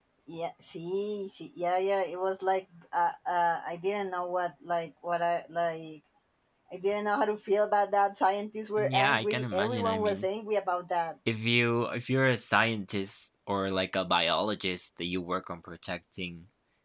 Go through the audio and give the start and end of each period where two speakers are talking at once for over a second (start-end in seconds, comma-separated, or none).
8.8-10.3